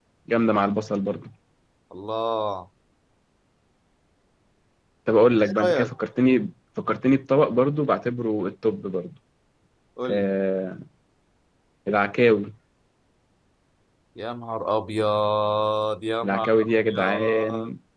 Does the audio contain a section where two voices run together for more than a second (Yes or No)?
Yes